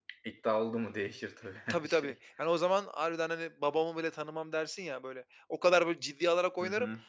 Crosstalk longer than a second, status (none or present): none